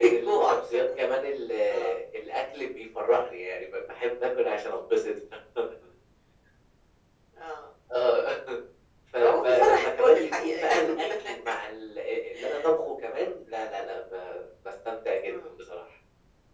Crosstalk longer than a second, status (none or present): present